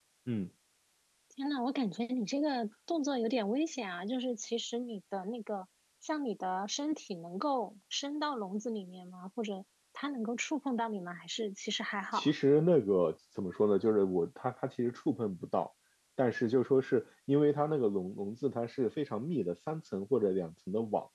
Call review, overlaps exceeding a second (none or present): none